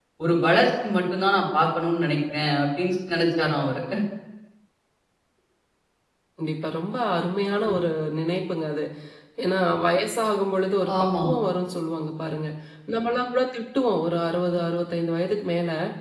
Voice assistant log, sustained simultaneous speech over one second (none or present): none